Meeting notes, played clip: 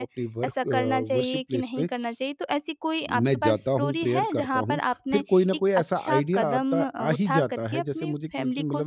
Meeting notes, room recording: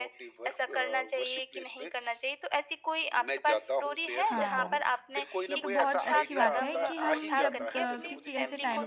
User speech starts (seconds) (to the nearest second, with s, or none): 4 s